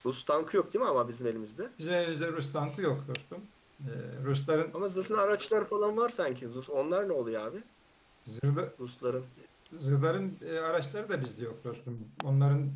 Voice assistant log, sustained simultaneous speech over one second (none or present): none